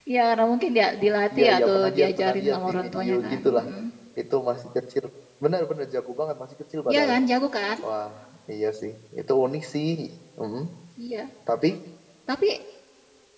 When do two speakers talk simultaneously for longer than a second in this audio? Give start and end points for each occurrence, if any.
1.4-3.6

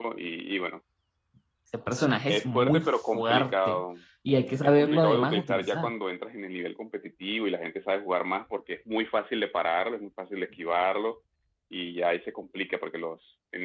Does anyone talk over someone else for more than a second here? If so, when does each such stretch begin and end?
2.3-3.8, 4.6-5.9

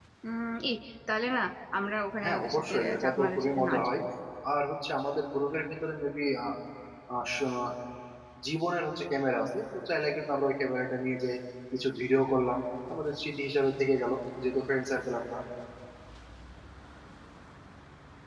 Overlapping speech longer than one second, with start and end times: 2.2-4.0

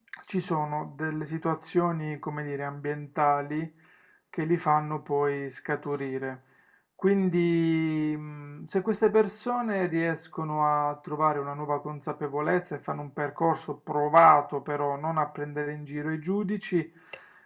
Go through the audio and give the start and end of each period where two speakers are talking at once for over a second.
none

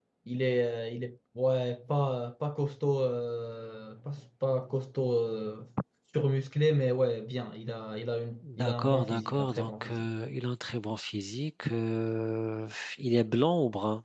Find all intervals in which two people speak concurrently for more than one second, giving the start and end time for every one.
8.6-9.9

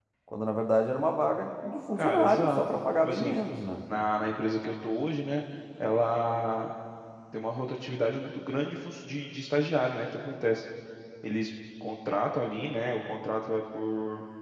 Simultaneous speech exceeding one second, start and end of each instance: 2.0-3.4

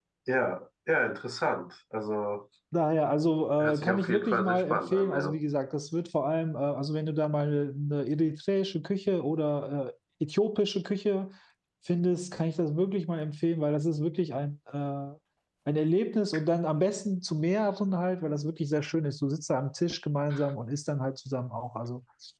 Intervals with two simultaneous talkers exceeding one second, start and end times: 3.6-5.4

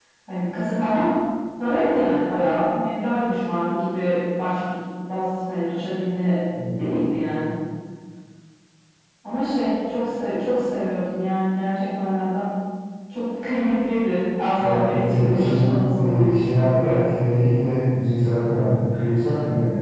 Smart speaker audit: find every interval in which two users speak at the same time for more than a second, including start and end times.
14.6-16.6

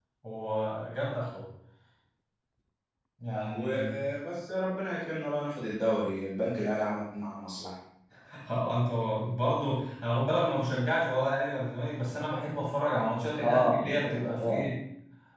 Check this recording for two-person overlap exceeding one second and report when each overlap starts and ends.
13.4-14.6

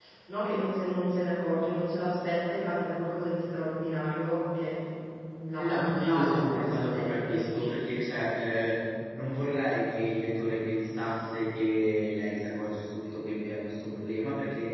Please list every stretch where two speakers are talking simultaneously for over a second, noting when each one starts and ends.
5.6-7.8

